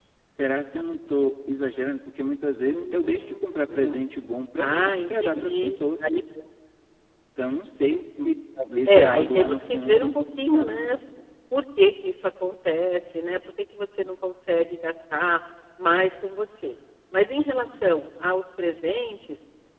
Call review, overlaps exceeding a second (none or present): present